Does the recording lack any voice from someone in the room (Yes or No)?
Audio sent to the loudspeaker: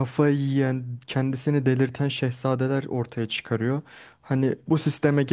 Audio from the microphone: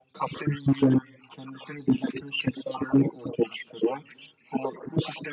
Yes